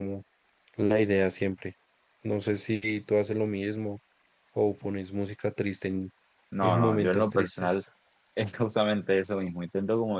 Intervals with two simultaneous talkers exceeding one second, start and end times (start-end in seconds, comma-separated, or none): 6.6-7.8